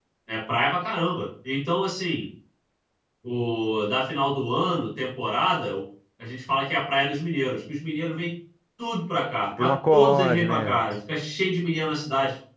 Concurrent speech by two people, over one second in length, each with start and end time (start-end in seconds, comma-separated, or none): 9.6-10.8